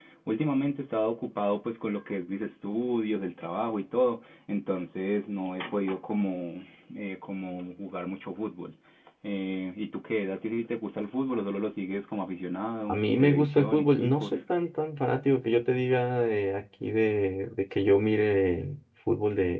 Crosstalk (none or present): present